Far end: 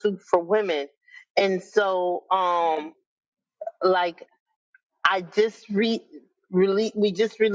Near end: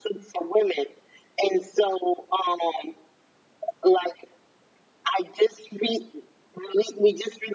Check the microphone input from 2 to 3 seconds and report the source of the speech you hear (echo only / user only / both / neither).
echo only